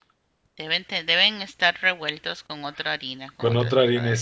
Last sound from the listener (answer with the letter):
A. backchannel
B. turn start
B